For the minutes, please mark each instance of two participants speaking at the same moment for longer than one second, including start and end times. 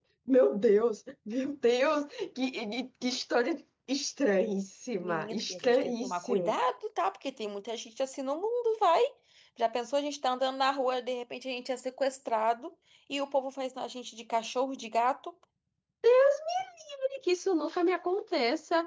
5.0-6.5

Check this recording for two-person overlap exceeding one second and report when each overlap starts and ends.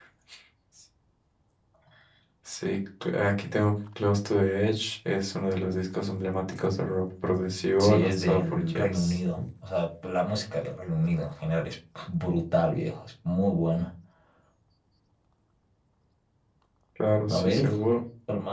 7.8-9.2

